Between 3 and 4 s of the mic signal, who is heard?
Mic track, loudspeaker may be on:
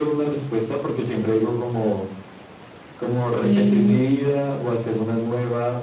both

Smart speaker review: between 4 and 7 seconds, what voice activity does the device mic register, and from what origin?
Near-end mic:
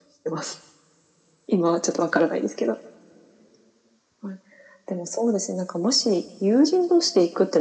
echo only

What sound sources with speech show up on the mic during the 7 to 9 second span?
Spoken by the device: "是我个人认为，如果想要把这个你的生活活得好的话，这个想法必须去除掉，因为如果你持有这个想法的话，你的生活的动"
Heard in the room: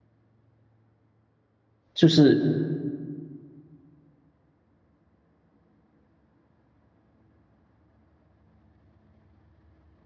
neither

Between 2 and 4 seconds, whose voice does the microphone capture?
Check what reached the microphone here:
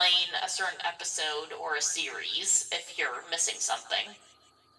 echo only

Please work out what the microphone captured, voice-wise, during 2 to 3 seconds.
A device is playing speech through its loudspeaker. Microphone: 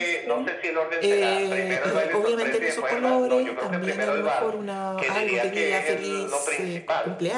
both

